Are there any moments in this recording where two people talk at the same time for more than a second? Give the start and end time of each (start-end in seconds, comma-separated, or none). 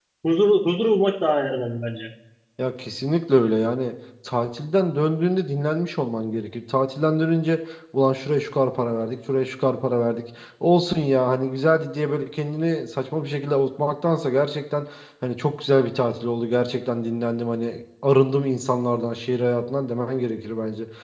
none